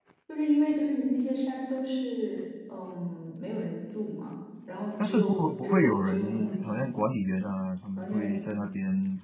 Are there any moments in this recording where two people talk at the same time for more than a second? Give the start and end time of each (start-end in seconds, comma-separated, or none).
5.0-6.9